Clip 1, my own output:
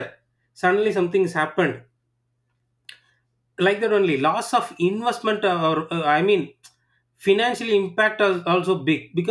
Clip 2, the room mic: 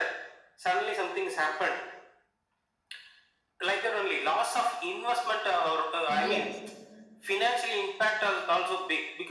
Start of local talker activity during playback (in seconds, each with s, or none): 6.1 s